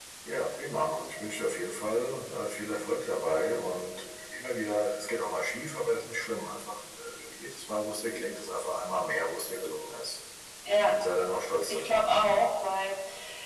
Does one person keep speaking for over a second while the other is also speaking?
No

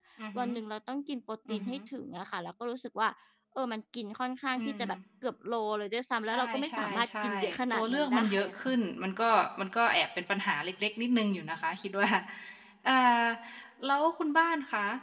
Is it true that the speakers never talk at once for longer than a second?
No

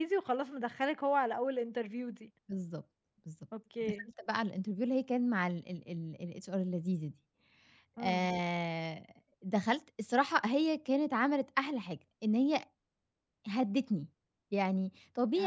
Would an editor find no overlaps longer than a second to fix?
Yes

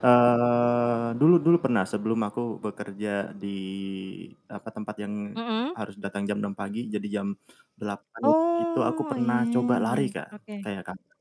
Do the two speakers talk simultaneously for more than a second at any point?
Yes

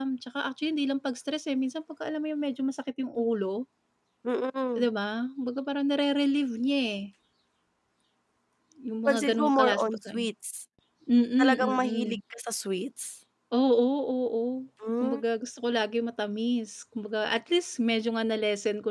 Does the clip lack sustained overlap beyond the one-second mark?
No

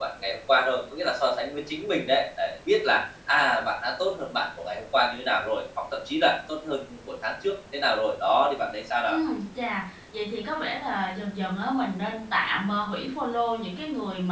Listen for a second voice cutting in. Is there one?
No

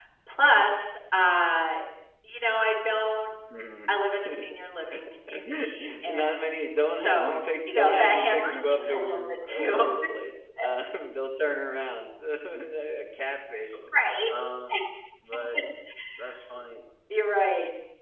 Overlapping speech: Yes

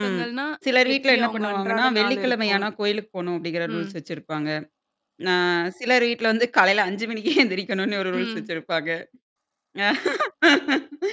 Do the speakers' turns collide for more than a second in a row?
Yes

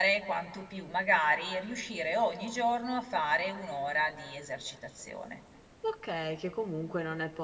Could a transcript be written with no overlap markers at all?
Yes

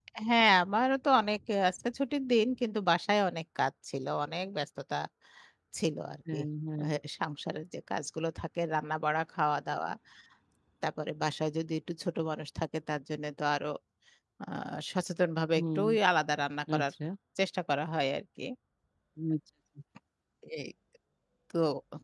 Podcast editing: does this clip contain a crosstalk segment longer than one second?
No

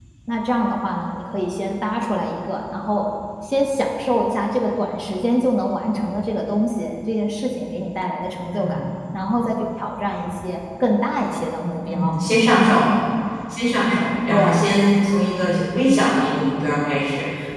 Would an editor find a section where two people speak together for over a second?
No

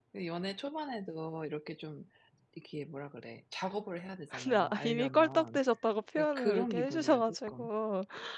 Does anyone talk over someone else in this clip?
Yes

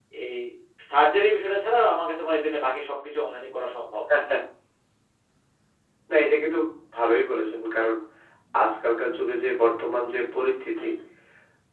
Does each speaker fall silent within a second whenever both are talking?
Yes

